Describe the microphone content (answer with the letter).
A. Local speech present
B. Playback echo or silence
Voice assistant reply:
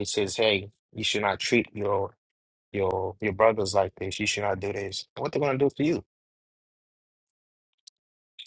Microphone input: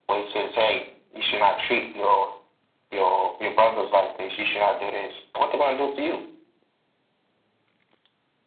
B